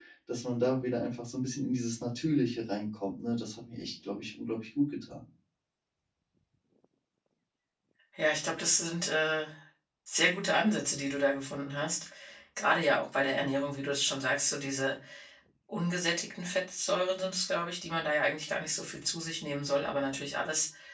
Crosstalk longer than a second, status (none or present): none